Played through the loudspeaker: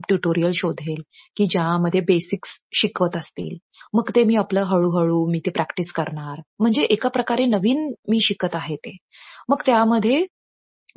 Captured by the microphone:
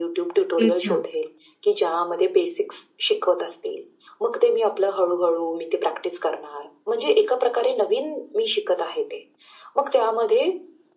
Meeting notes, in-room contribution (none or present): present